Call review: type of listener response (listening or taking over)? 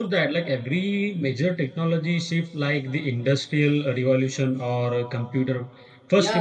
taking over